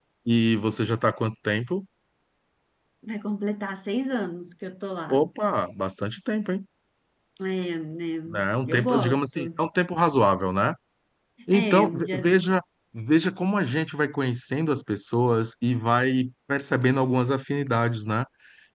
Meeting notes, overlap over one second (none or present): present